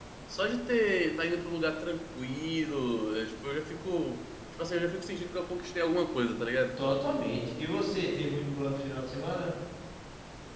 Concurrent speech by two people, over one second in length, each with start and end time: none

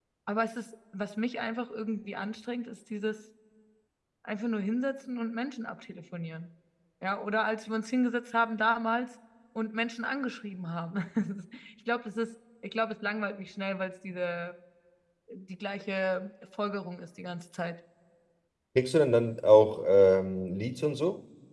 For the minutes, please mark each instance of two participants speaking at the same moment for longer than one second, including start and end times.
none

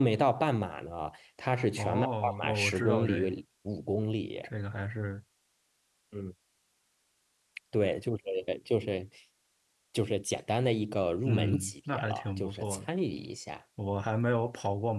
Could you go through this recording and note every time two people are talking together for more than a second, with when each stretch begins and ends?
1.8-3.3, 11.2-12.9

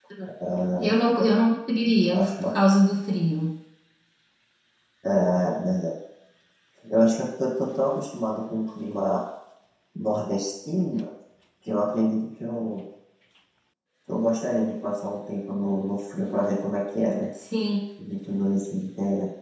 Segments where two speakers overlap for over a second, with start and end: none

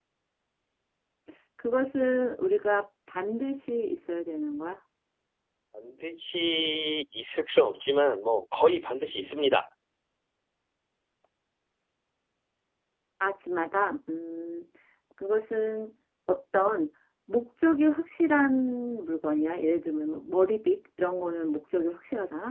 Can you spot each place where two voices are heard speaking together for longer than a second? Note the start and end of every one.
none

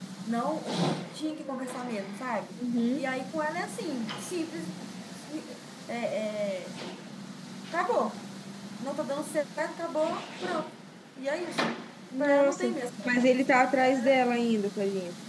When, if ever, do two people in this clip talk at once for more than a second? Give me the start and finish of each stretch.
12.2-13.4

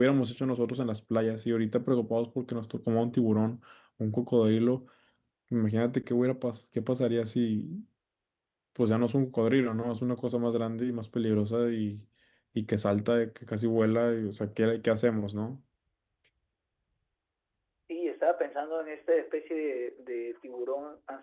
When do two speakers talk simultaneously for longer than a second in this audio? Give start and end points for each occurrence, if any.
none

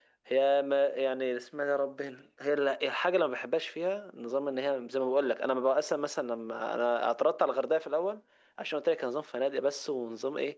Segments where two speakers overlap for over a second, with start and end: none

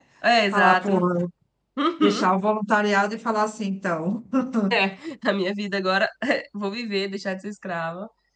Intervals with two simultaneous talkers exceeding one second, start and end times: none

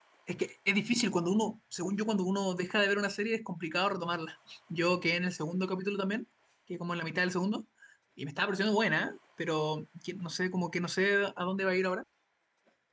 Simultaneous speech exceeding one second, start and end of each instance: none

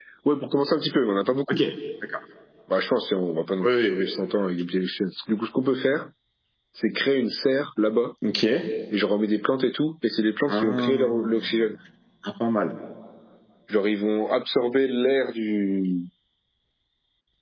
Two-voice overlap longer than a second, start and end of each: 10.5-11.7

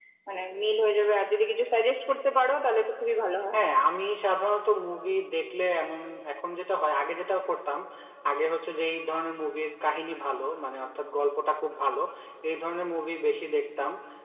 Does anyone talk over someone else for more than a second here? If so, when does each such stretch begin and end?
none

